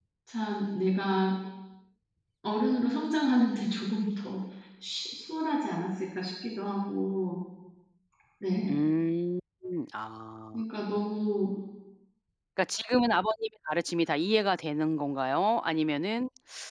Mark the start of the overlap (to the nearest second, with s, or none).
none